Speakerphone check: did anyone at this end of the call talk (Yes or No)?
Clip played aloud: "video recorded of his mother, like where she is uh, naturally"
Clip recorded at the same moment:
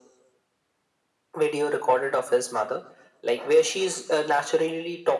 No